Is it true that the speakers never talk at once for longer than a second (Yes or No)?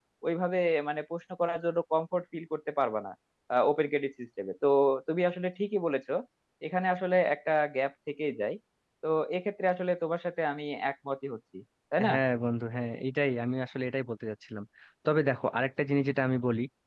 Yes